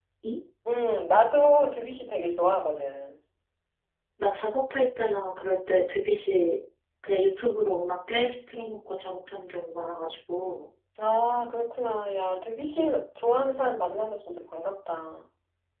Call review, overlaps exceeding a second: none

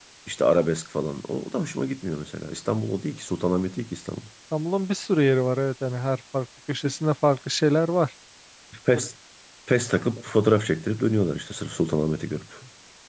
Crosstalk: none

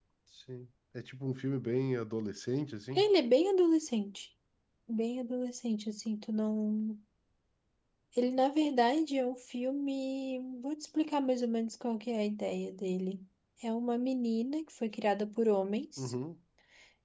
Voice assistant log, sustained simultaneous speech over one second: none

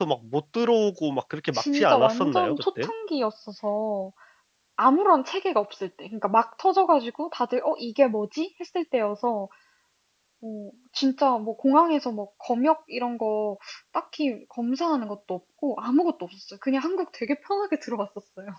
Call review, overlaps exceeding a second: present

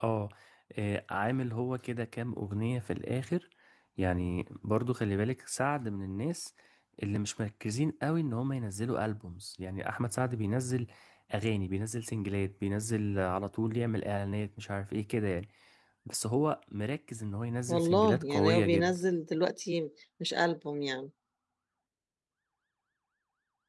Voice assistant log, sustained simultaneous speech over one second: present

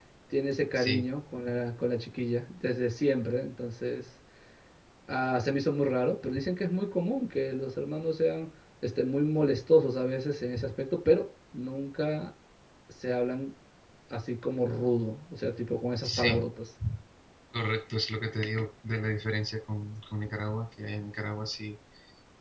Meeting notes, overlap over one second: none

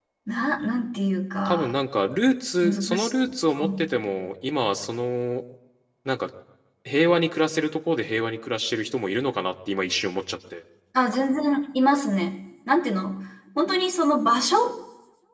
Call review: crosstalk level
present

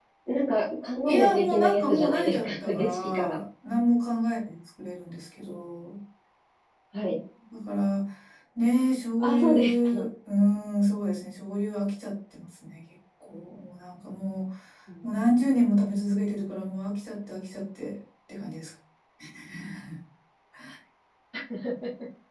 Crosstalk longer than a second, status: present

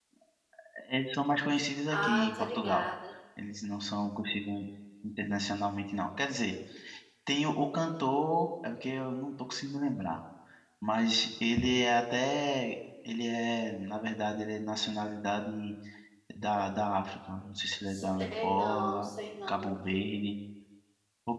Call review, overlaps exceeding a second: present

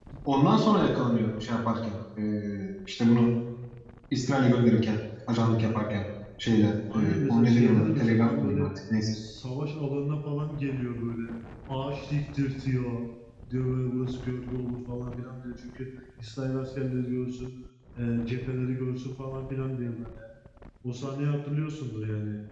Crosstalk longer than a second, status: present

